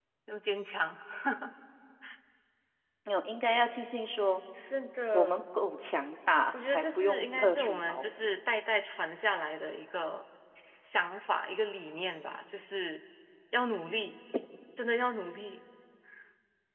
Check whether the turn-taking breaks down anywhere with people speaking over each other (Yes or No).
Yes